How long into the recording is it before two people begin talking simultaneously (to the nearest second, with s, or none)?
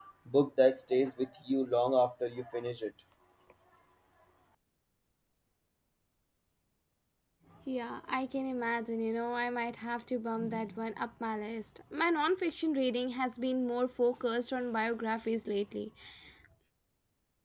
none